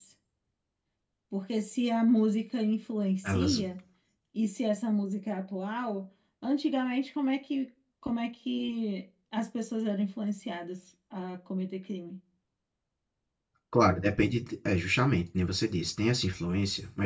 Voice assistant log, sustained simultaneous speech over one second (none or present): none